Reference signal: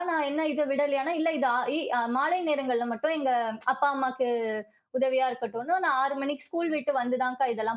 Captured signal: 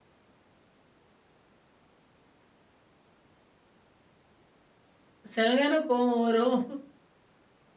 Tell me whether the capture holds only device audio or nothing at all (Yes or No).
No